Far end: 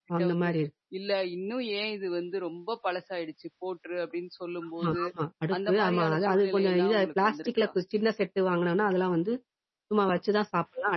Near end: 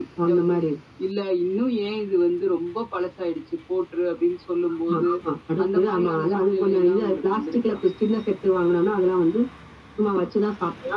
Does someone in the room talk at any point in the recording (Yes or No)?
No